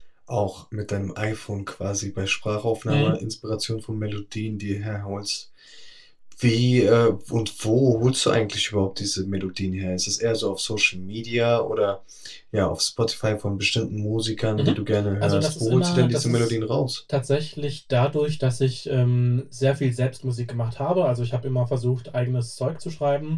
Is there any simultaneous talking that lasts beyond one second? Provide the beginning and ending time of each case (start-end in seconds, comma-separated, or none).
15.2-16.5